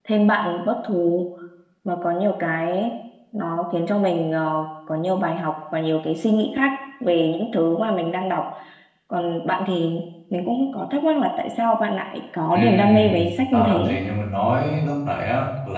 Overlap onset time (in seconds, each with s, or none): 12.6 s